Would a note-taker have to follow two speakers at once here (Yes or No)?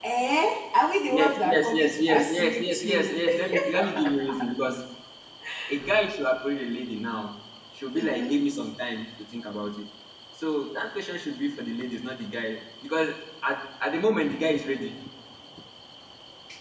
Yes